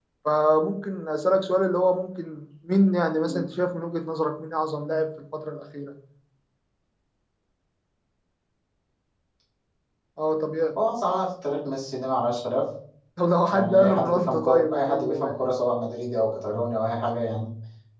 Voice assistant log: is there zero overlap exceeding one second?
No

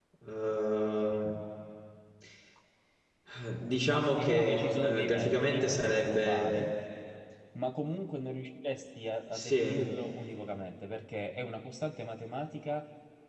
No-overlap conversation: No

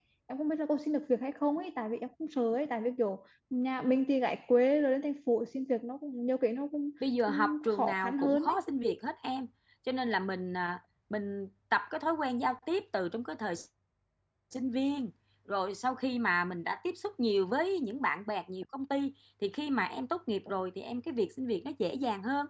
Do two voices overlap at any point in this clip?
Yes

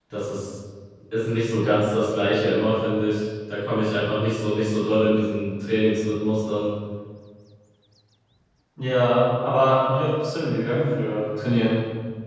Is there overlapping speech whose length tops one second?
No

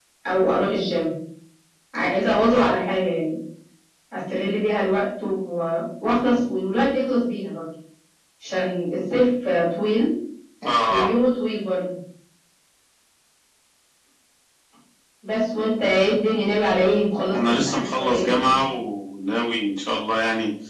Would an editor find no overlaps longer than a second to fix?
No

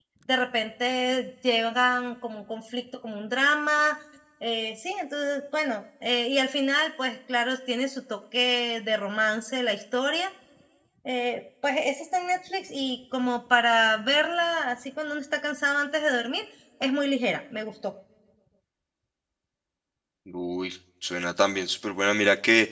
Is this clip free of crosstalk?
Yes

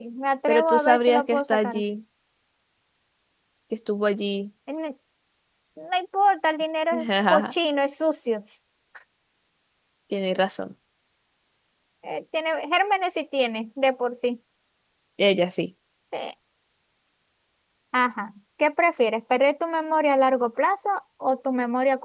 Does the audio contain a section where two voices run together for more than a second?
Yes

